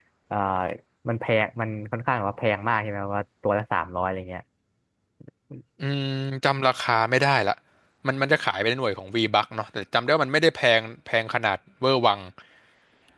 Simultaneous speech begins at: none

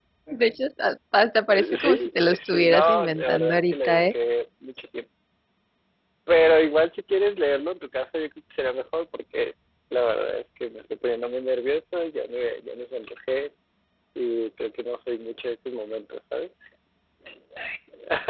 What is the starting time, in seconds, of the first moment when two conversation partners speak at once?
2 s

